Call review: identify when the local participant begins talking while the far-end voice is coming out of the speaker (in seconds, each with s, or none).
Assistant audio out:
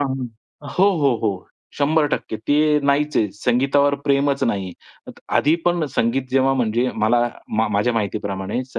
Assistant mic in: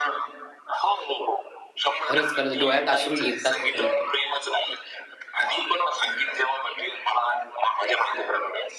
2.0 s